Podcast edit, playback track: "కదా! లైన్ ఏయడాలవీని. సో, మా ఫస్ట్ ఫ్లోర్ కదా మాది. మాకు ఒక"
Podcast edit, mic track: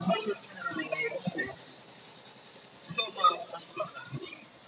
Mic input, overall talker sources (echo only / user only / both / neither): echo only